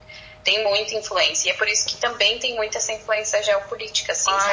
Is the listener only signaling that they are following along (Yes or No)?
No